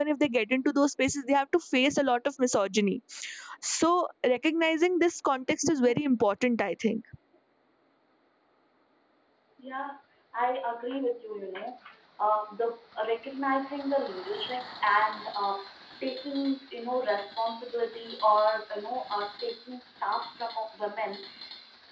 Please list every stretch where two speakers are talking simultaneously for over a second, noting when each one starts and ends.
none

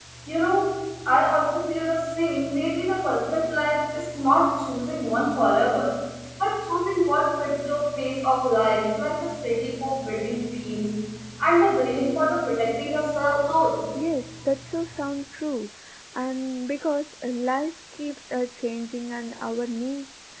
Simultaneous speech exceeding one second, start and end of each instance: none

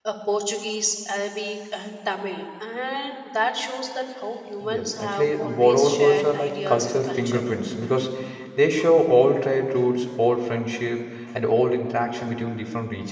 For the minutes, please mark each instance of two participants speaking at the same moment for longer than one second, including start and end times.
4.7-7.4

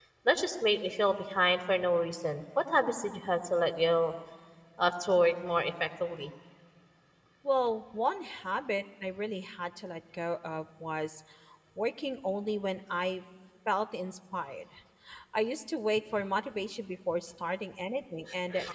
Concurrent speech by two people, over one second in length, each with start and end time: none

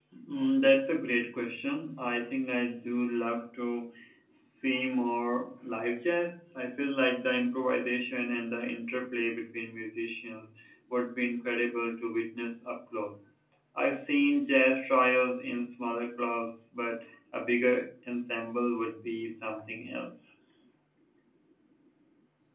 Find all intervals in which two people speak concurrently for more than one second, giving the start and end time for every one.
none

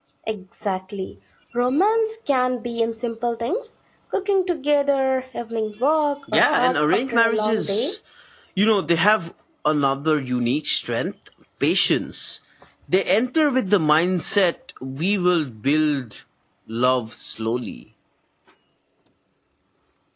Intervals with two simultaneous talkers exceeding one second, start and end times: 6.3-8.0

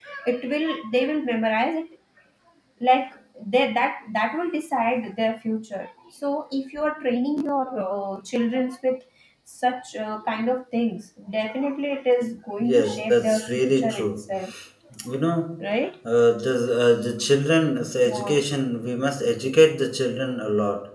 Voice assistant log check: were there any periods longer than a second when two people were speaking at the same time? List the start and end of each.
12.7-14.1

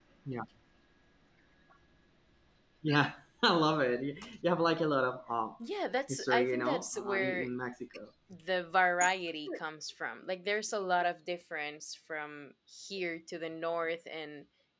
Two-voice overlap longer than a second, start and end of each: 6.1-7.5

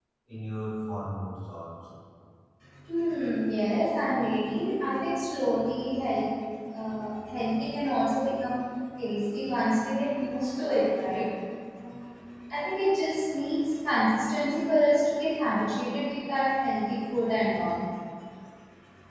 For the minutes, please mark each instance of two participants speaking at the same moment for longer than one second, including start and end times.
none

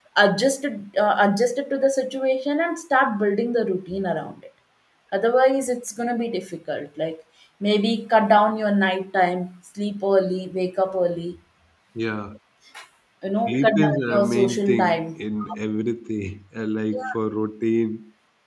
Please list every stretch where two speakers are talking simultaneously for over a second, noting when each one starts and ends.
13.5-14.8

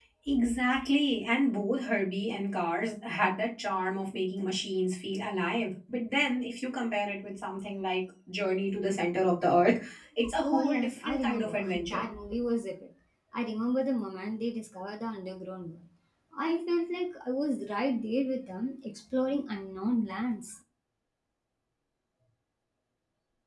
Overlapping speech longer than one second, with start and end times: 10.4-12.0

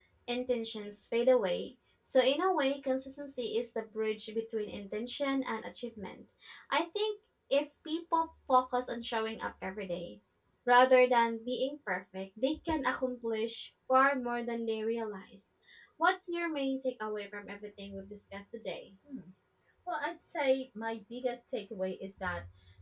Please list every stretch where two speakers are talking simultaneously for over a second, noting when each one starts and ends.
none

